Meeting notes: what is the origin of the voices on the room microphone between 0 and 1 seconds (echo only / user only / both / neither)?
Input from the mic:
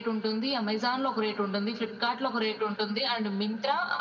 echo only